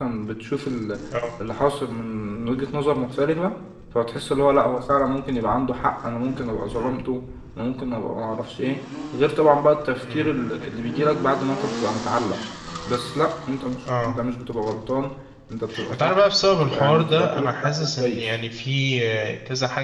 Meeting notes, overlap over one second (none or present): present